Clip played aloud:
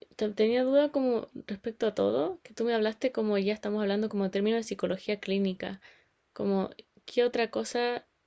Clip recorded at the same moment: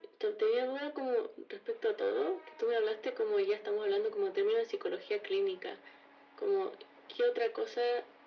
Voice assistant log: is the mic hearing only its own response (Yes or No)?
Yes